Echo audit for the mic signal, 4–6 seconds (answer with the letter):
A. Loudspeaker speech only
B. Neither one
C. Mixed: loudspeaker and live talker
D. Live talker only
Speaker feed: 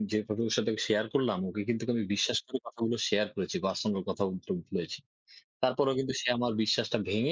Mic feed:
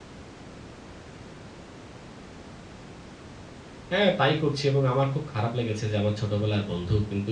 D